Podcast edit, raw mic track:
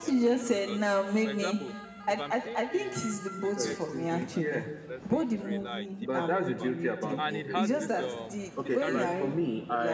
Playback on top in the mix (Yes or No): Yes